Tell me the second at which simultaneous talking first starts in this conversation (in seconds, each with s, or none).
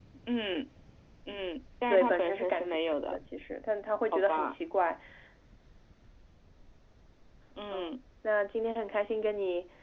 1.9 s